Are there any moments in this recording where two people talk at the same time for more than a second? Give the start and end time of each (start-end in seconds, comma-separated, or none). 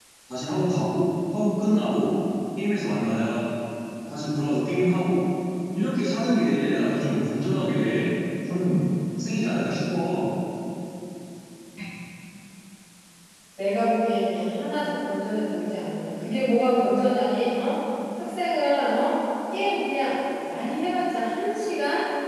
none